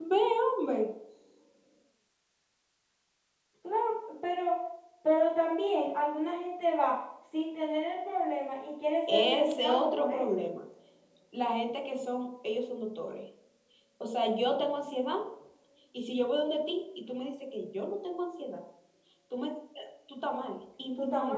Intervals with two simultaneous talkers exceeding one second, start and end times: 9.1-10.4

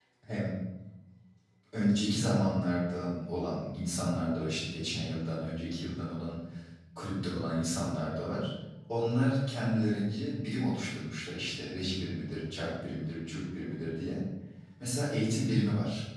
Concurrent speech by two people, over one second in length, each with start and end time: none

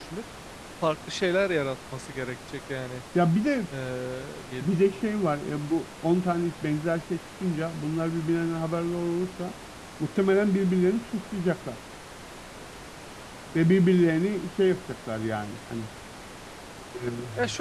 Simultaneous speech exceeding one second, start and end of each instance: none

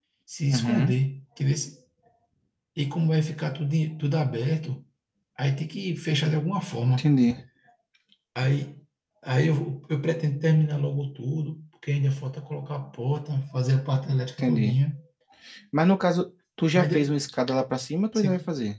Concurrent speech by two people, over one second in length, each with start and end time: none

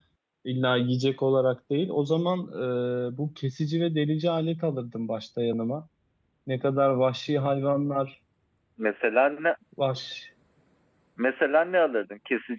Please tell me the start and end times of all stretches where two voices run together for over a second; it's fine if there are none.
none

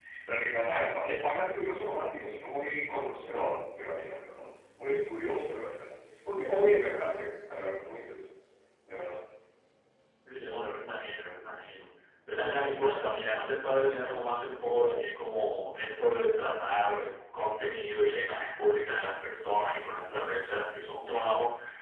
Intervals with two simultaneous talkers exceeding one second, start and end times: none

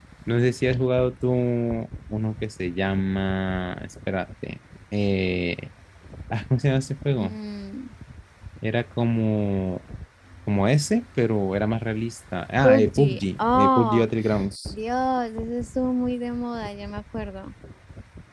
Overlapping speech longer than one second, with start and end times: 12.6-14.0

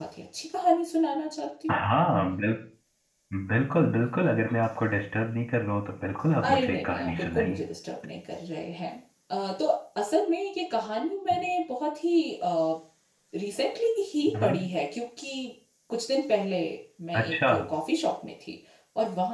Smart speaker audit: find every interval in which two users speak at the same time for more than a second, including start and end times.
6.4-7.6

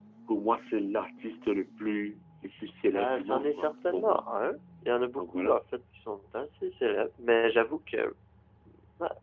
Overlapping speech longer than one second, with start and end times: 2.9-4.2

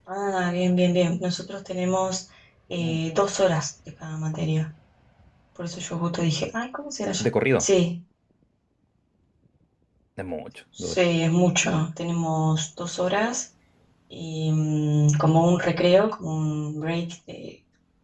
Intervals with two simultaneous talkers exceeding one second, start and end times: none

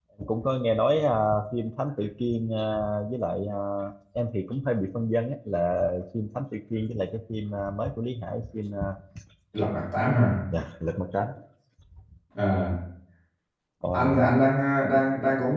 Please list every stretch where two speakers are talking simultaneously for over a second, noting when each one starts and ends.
none

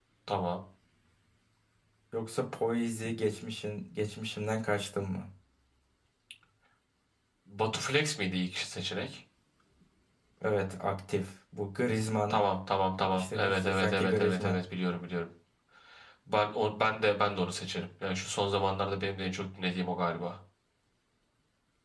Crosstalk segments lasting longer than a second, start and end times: 13.1-14.6

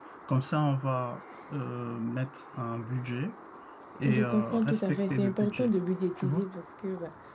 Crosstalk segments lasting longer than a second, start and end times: 4.1-5.7

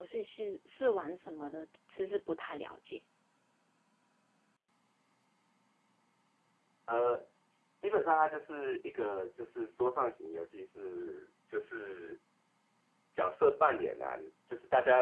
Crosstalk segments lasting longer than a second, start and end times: none

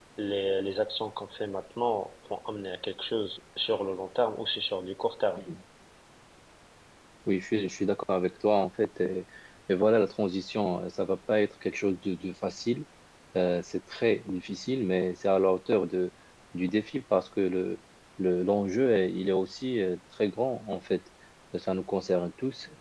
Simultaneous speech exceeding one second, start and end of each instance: none

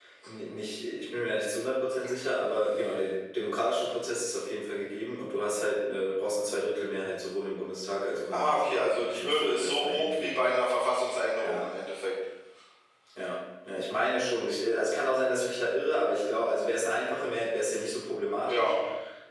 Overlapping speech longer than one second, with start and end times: 8.3-10.4

